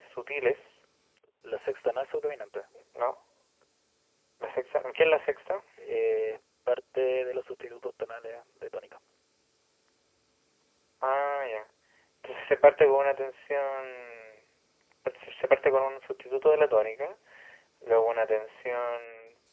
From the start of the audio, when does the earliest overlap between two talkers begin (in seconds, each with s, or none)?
none